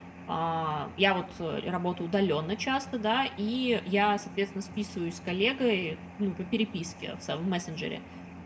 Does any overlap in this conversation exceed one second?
No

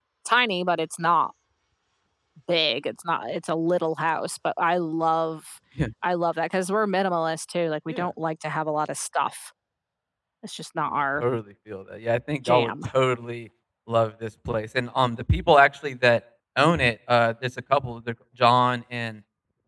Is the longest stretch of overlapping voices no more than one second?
Yes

